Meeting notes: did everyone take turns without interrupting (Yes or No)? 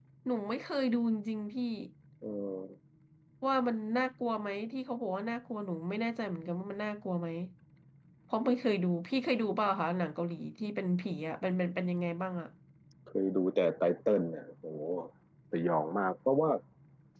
Yes